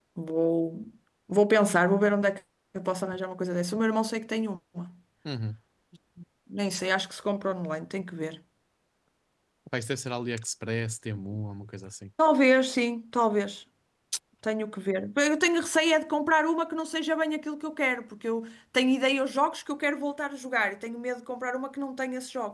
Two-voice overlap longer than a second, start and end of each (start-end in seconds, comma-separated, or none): none